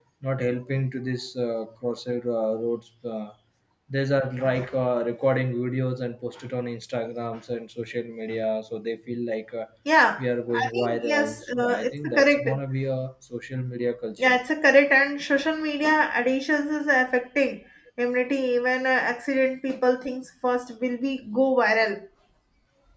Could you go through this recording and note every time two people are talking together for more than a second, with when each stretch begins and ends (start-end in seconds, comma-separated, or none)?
10.2-12.5